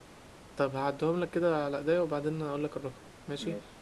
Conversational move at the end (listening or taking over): listening